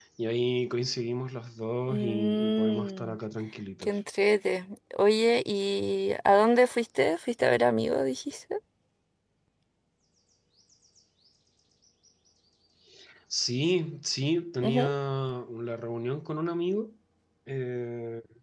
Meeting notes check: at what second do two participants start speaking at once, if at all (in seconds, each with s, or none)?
1.9 s